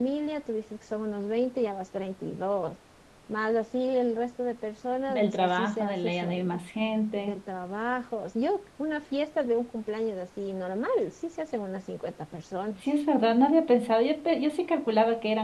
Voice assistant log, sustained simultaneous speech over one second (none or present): present